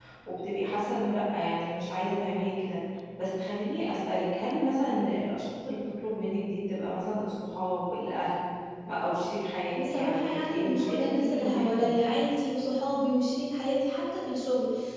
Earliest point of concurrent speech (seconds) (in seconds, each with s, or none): 9.8 s